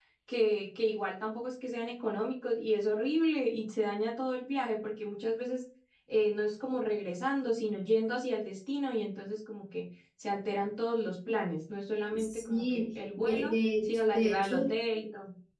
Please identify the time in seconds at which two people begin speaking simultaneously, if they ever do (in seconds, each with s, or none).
12.1 s